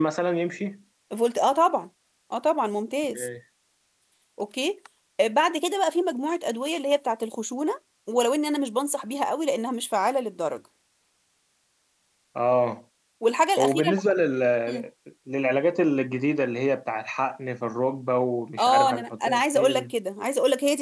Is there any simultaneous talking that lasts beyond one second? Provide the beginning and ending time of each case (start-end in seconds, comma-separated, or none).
18.6-19.9